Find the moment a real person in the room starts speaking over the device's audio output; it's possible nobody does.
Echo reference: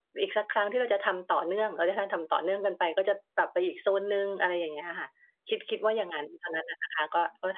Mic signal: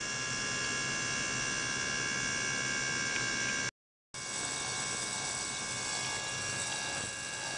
none

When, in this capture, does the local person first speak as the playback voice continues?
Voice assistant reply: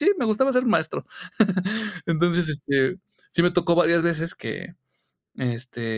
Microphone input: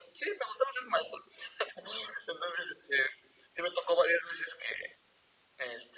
none

